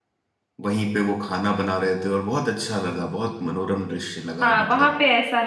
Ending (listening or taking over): taking over